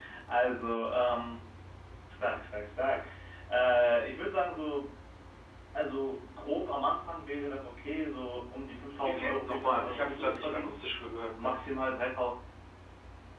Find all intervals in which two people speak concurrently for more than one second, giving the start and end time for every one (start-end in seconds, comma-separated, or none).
9.0-10.8